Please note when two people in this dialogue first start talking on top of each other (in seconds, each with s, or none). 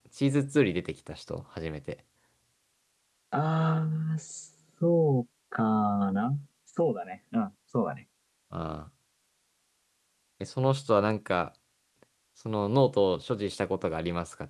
none